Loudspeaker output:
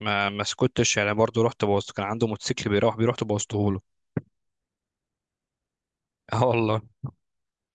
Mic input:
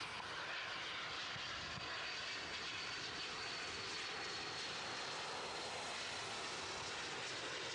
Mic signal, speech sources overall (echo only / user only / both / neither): neither